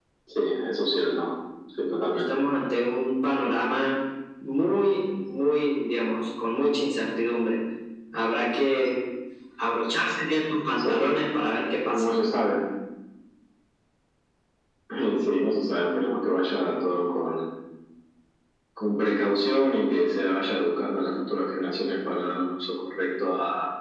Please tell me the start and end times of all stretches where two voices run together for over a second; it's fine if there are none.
none

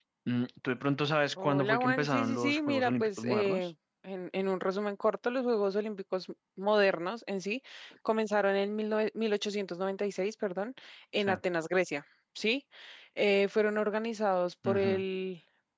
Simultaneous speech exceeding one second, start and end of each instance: 1.4-3.7

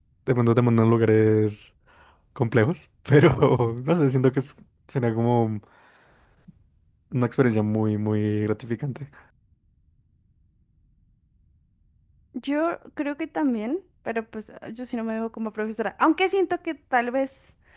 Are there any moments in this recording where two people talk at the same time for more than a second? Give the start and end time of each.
none

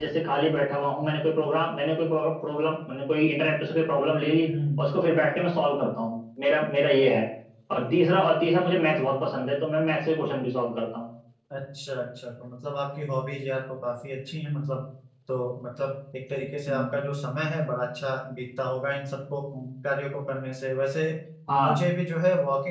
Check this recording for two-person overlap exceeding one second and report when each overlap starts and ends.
none

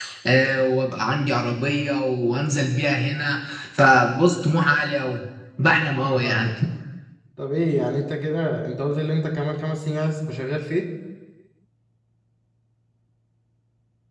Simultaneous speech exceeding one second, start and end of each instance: none

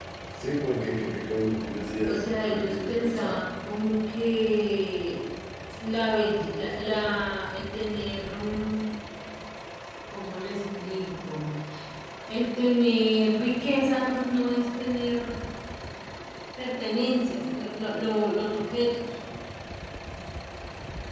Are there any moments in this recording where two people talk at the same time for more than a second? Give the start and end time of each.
2.0-3.4

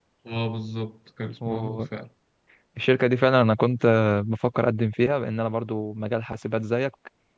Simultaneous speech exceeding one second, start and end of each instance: none

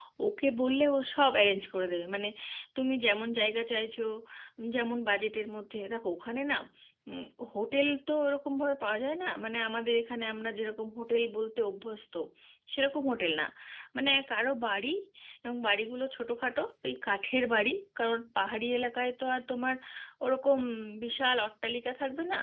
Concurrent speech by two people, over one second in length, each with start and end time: none

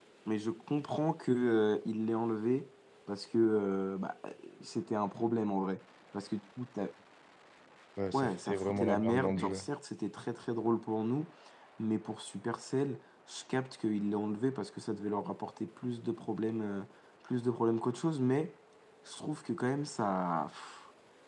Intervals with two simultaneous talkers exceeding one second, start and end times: 8.1-9.6

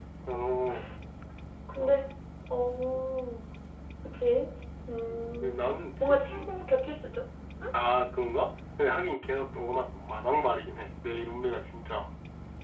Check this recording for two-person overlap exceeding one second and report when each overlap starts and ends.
5.1-6.5

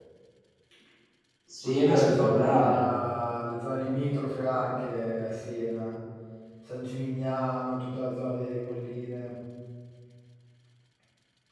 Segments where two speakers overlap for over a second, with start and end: 1.6-2.8

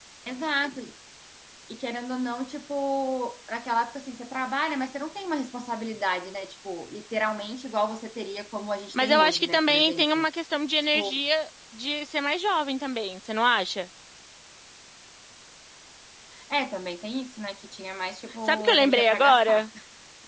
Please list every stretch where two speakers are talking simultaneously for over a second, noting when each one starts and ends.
8.9-10.3, 18.4-19.7

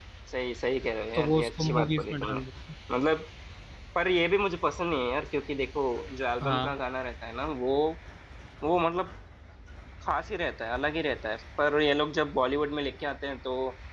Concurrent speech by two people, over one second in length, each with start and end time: 1.2-2.4

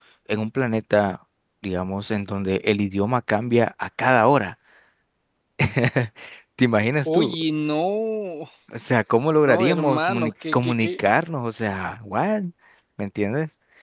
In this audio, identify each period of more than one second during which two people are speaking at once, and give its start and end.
9.4-10.9

